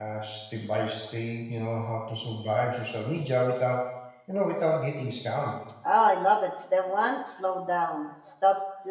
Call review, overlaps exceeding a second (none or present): none